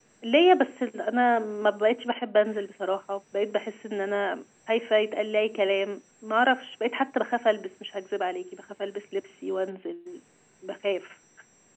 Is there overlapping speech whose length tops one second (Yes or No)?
No